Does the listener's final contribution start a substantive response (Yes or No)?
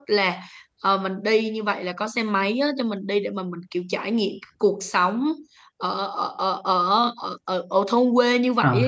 Yes